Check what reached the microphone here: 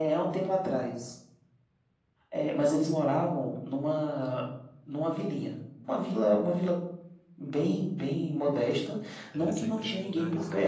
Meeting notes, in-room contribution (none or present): present